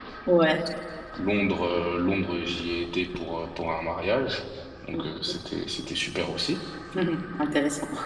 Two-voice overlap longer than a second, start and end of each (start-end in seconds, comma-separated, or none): none